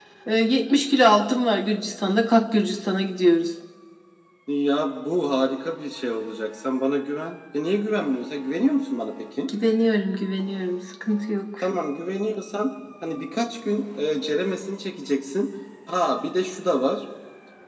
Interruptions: none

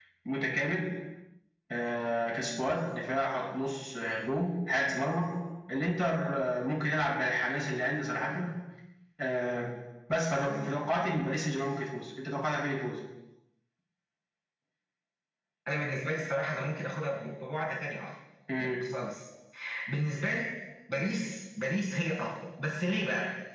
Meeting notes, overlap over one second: none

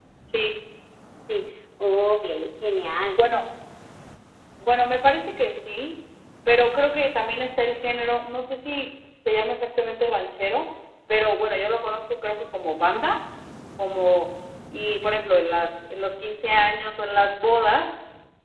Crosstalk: none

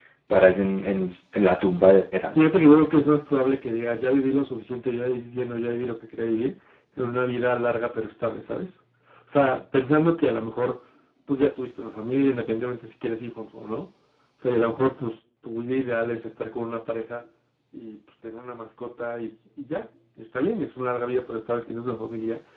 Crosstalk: none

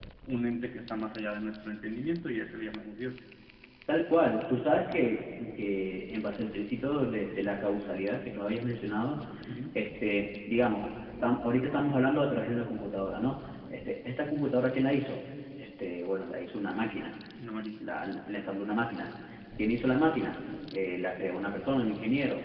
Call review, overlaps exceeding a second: none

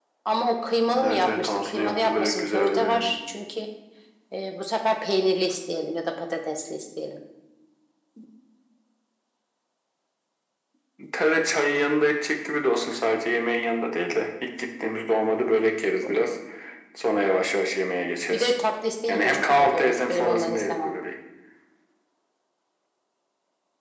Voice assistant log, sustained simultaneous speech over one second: present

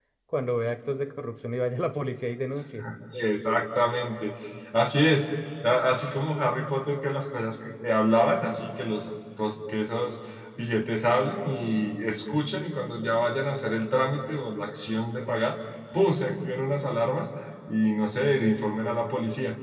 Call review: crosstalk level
none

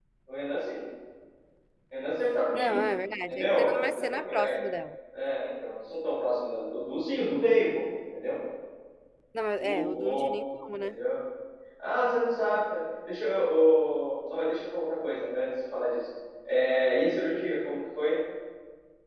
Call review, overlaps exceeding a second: present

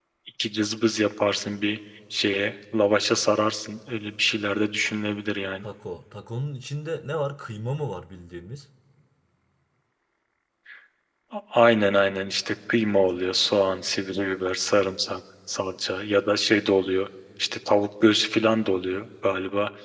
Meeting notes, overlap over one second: none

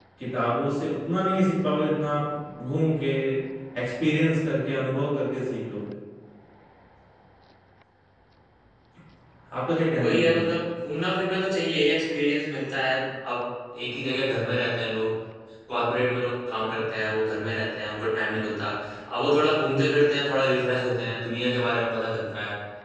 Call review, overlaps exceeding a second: none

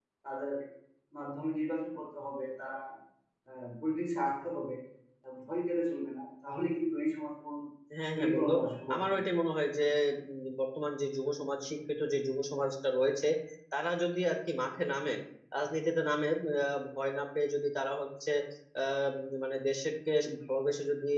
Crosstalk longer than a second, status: none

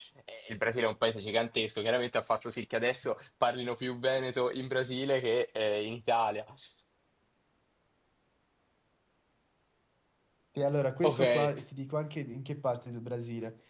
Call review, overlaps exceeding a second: none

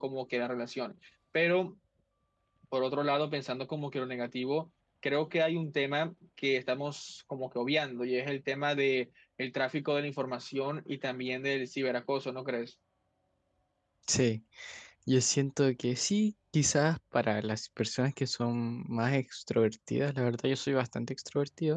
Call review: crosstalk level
none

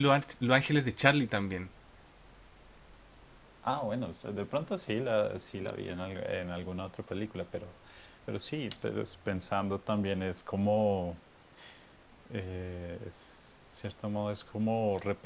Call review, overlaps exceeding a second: none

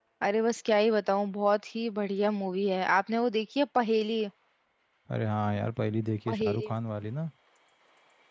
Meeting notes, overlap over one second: none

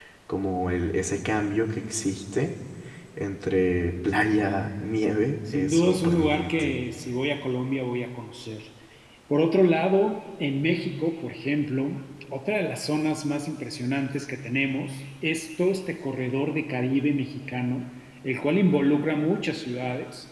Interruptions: present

